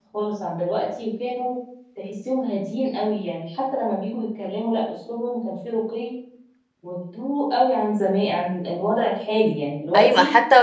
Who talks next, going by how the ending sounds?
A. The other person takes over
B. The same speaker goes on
A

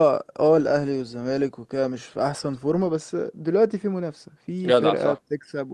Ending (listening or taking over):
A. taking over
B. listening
B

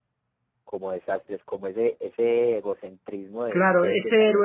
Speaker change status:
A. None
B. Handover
B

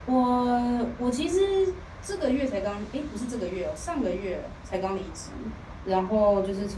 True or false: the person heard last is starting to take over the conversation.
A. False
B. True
A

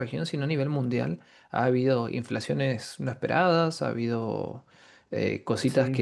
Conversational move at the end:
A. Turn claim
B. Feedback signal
B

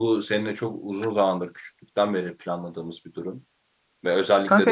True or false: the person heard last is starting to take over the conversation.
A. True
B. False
A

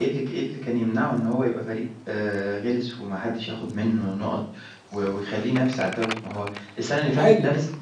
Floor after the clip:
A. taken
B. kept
B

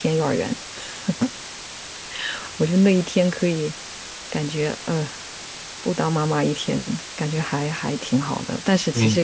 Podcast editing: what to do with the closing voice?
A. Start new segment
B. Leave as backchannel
B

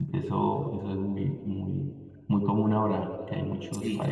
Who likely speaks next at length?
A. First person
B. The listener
A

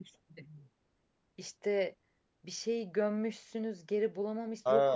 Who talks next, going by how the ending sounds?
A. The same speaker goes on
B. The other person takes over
B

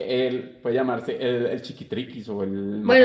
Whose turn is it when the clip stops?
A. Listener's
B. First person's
A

